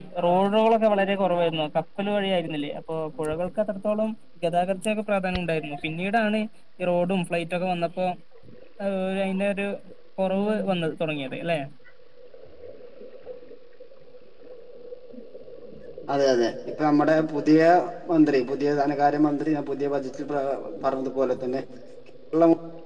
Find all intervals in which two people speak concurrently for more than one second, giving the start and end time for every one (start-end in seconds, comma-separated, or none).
none